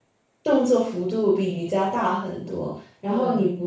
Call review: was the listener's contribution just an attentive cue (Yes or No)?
Yes